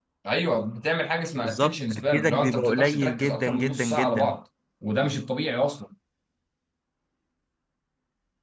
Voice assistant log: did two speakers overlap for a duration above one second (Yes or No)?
Yes